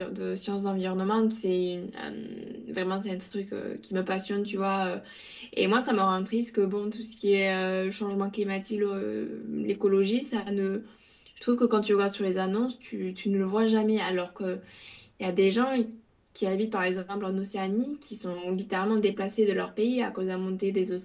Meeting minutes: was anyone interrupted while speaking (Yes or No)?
No